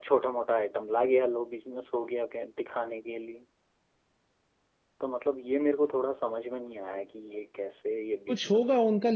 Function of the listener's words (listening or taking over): taking over